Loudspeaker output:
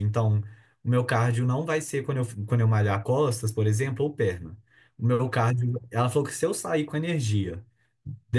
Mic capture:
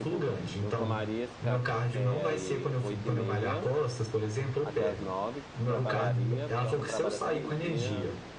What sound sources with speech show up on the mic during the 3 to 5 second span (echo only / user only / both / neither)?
both